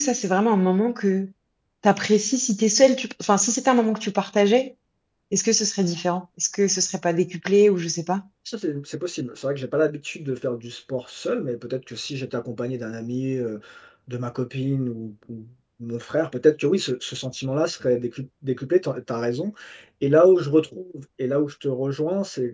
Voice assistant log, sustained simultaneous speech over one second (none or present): none